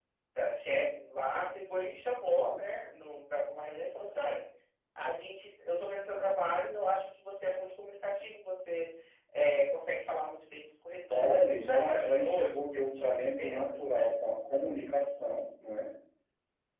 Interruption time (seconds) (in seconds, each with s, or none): 11.1 s